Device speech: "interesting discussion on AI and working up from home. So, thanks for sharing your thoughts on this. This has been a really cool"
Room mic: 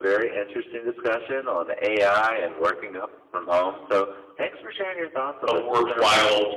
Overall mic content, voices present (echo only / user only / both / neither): both